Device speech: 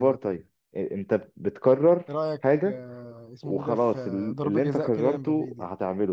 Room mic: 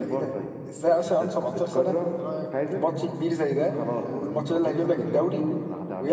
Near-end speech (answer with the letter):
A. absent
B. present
B